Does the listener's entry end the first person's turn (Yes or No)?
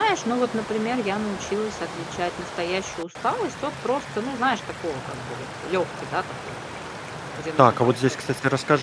Yes